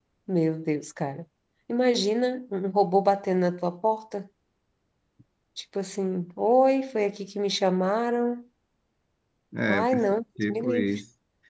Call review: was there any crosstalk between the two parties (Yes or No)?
Yes